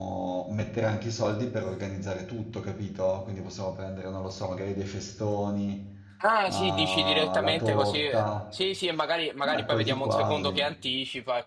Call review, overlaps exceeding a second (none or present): present